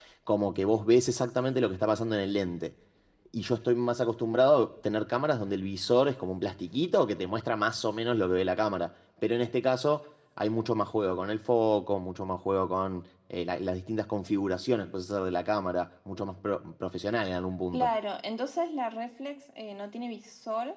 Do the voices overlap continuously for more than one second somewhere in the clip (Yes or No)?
No